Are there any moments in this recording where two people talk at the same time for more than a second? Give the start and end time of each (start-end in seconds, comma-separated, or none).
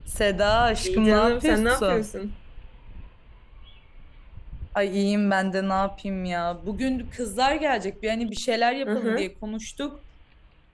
0.8-2.1